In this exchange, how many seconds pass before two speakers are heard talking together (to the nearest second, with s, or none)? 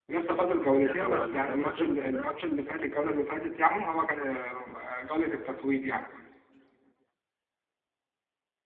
1 s